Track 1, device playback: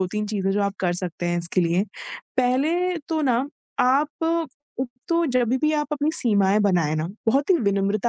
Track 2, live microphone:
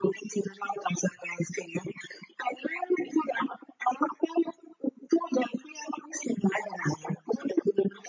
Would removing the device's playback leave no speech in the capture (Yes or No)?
Yes